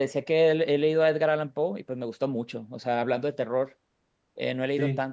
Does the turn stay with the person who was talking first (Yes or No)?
Yes